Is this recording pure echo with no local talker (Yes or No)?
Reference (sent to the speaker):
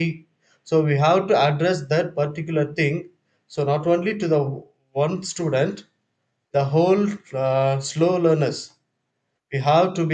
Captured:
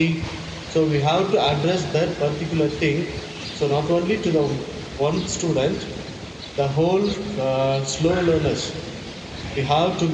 Yes